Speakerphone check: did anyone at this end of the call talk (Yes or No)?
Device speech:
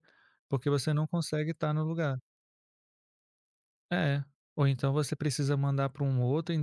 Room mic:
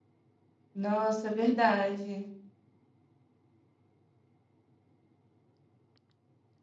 Yes